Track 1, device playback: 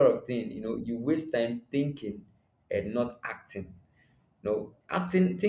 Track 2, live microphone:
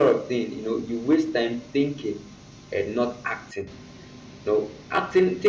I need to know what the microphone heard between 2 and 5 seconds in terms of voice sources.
echo only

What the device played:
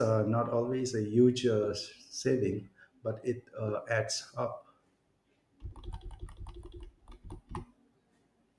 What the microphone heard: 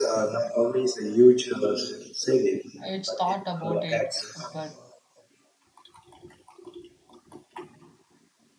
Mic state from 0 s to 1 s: echo only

